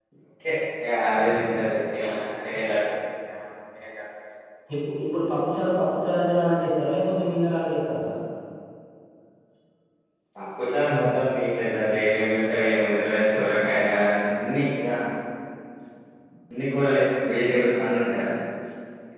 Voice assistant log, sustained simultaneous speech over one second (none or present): none